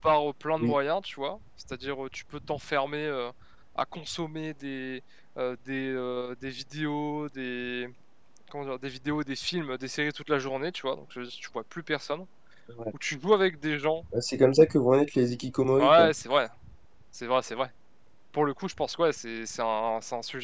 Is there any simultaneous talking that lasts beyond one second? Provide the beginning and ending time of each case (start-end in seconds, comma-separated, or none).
none